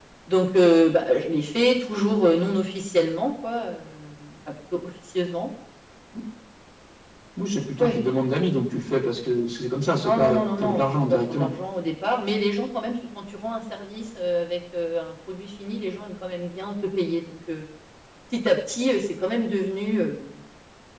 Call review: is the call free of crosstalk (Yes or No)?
No